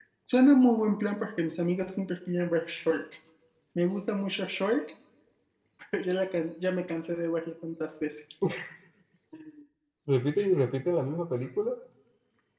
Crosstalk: none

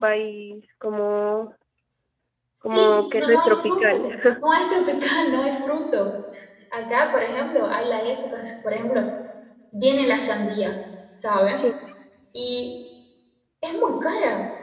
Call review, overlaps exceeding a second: present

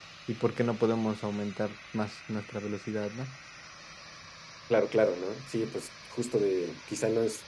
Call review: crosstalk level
none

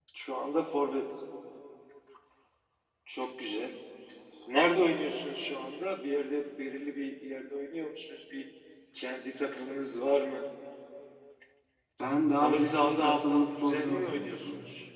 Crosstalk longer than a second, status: present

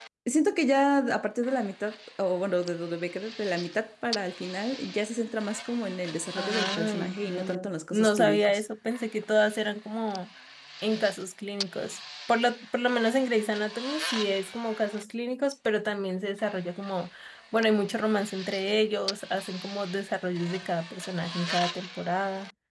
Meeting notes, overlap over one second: present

